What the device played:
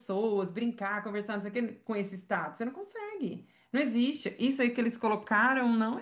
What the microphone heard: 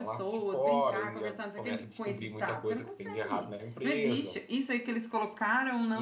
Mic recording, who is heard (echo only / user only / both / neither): both